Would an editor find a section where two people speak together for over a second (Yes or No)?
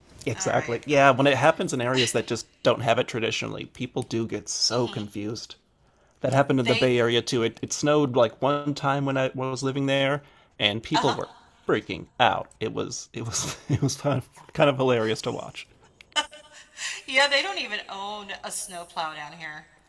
No